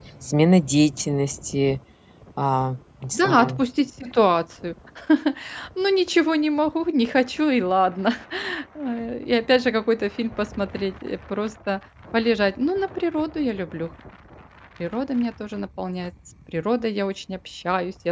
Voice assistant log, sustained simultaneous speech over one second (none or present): none